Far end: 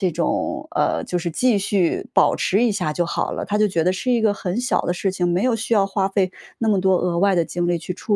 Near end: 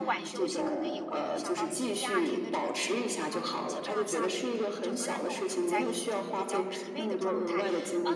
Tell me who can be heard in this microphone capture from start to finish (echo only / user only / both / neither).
both